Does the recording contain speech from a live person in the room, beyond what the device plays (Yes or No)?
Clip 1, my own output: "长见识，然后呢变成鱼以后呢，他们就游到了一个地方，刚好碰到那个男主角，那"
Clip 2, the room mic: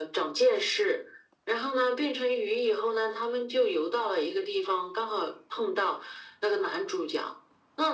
No